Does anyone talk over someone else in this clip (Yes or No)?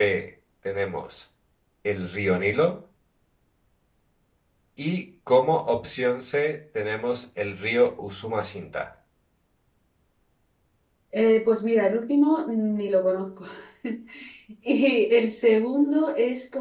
No